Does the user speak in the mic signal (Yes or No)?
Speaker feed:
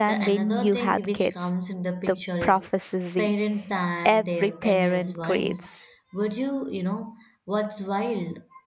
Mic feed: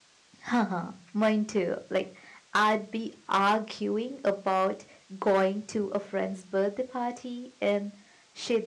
Yes